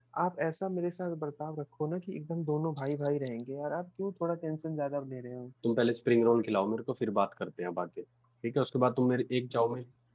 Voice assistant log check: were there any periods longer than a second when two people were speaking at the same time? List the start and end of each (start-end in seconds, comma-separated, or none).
none